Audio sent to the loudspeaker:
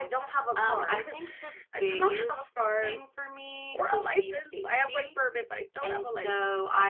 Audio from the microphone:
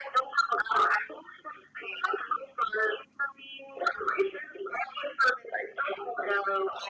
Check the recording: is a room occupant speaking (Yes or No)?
No